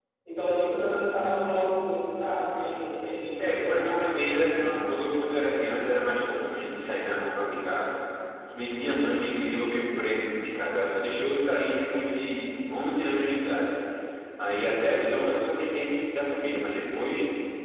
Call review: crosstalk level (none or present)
present